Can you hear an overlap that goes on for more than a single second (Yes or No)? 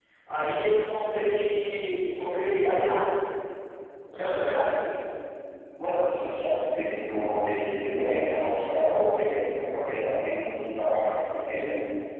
No